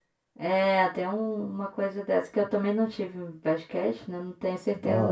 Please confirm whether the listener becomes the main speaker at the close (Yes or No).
Yes